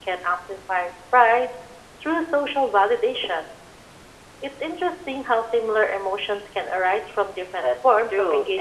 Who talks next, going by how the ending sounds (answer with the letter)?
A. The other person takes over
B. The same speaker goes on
A